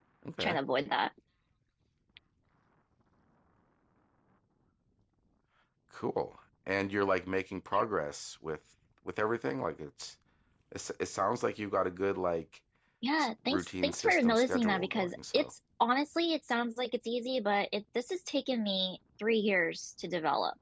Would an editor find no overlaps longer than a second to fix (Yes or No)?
No